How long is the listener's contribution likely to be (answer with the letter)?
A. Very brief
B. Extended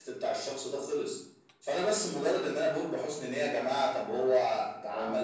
A